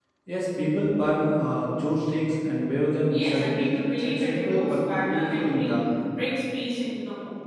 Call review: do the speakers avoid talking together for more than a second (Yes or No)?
No